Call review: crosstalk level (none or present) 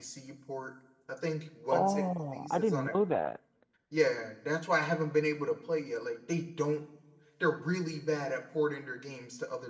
present